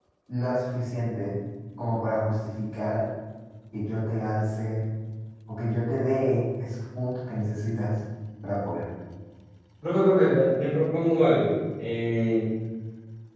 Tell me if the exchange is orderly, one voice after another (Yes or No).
Yes